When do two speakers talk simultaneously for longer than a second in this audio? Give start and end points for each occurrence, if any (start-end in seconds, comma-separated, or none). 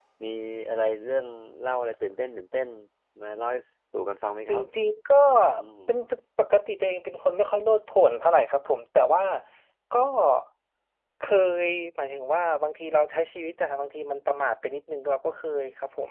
none